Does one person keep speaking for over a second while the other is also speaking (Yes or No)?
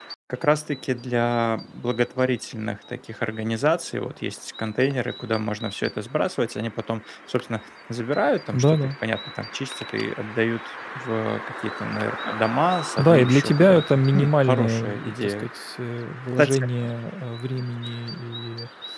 Yes